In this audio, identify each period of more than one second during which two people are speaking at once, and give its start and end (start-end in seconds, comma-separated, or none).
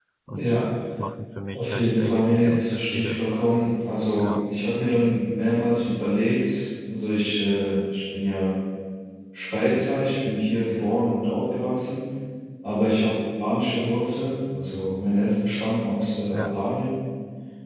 1.5-3.2